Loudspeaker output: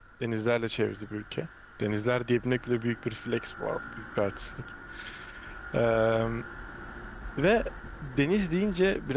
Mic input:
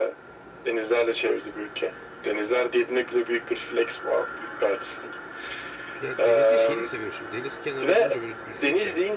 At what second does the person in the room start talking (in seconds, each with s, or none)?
6.0 s